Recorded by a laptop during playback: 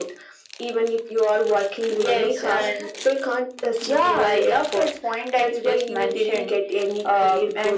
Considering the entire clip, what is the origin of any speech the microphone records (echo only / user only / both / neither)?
echo only